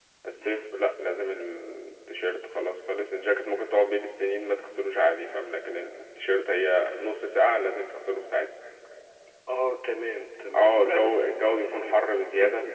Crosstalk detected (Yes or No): Yes